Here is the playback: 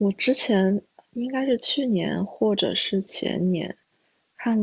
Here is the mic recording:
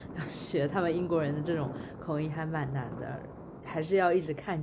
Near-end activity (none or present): present